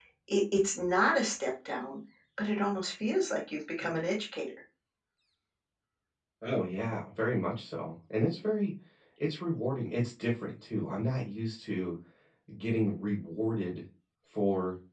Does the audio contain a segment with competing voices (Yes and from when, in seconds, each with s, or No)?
No